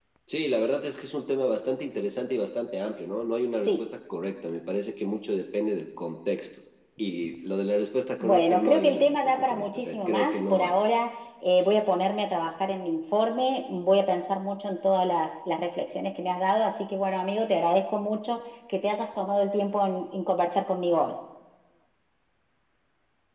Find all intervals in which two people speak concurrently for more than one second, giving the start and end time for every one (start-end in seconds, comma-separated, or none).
8.2-10.7